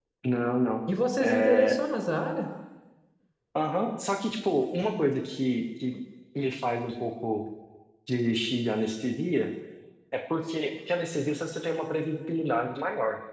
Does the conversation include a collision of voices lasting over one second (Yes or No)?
No